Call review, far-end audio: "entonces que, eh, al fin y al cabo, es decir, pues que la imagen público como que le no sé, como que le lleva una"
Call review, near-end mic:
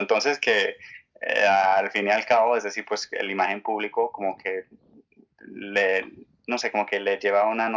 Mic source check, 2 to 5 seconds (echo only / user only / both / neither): echo only